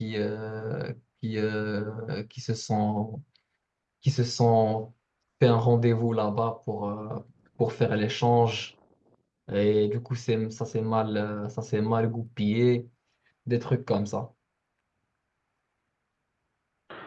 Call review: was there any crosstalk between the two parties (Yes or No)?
No